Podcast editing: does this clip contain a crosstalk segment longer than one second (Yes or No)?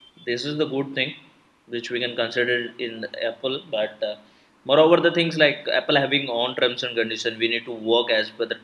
No